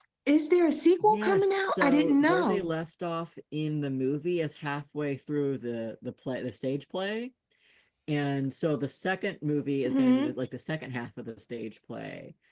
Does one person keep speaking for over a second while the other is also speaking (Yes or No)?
Yes